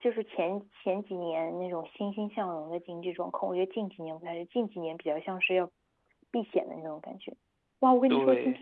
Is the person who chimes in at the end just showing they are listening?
Yes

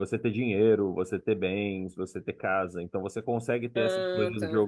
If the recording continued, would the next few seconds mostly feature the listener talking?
No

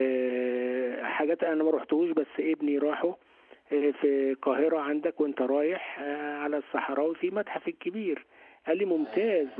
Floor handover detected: No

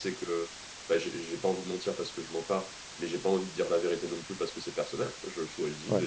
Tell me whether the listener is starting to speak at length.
No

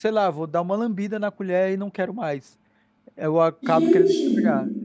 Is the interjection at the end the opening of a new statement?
No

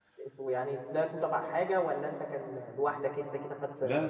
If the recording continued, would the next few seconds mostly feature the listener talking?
Yes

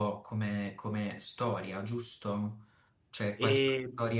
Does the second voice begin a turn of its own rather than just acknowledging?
No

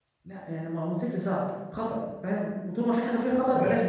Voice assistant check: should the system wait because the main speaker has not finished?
No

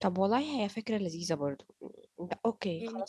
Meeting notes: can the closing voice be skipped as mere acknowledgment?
No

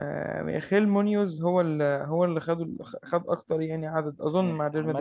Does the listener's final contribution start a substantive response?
Yes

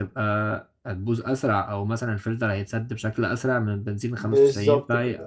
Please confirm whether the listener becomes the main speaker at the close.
Yes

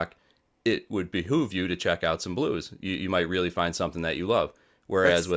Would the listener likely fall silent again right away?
Yes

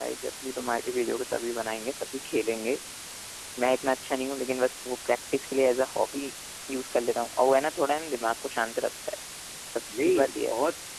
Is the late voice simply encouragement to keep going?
No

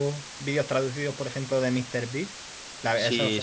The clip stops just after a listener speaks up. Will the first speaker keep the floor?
No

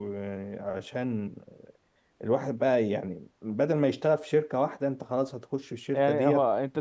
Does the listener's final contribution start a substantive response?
Yes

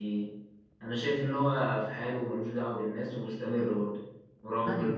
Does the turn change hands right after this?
No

